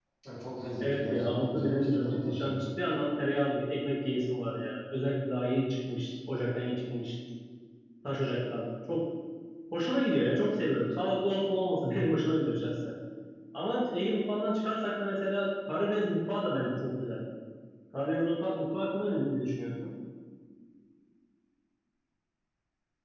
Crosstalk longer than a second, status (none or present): present